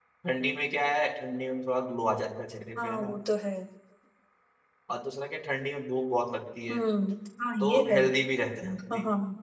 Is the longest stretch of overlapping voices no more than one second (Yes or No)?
Yes